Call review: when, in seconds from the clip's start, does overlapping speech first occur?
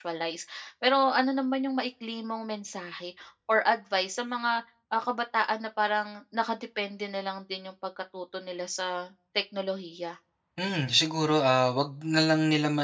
none

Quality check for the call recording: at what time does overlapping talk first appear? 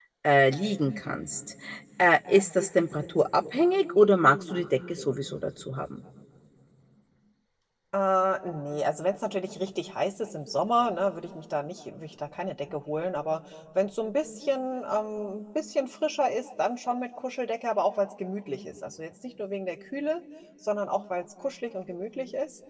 none

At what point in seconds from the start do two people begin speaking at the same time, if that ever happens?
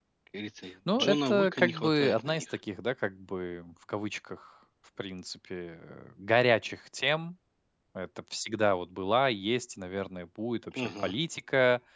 1.0 s

